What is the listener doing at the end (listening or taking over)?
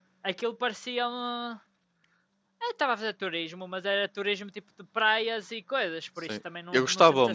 taking over